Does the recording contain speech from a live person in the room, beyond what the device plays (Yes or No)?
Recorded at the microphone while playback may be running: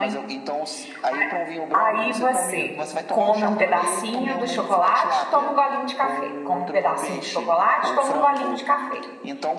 Yes